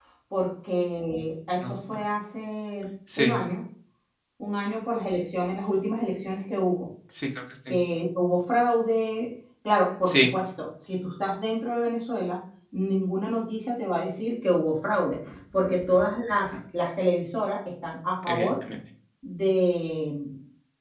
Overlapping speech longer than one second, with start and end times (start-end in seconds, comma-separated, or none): none